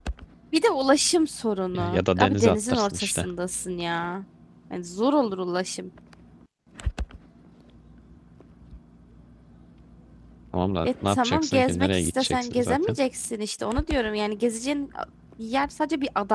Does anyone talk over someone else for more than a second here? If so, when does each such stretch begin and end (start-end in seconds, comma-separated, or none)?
1.7-3.3, 10.8-13.0